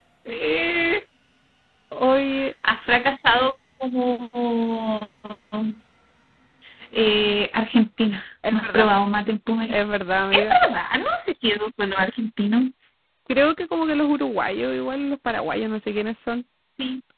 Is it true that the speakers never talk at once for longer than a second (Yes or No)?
Yes